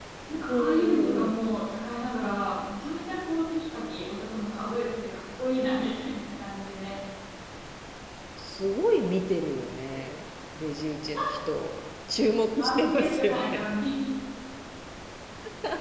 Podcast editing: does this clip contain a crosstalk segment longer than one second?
Yes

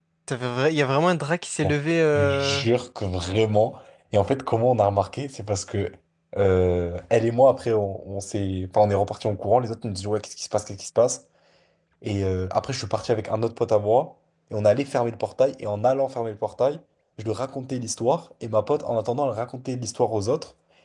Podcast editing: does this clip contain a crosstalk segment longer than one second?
No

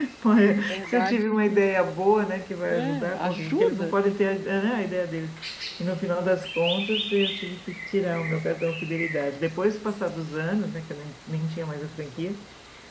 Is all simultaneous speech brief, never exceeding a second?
No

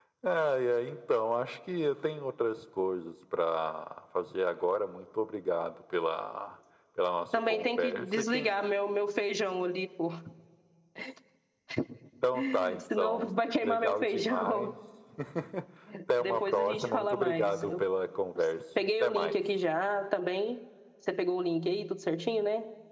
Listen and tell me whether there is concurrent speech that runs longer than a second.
Yes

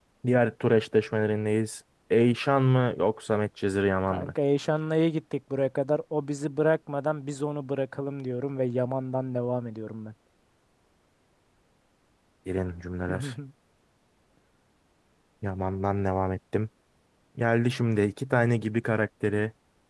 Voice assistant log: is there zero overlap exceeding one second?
Yes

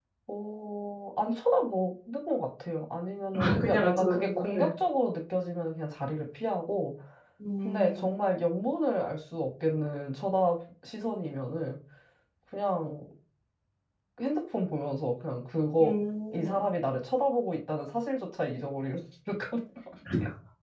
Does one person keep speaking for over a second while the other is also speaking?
Yes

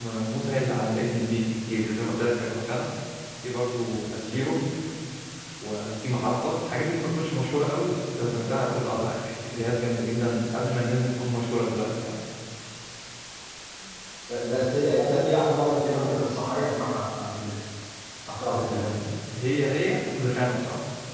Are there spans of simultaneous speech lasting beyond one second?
No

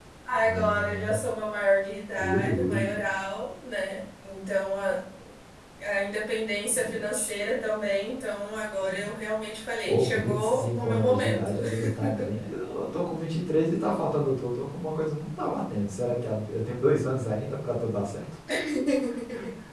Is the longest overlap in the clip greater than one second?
Yes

